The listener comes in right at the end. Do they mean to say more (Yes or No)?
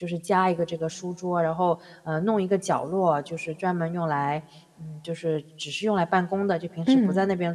No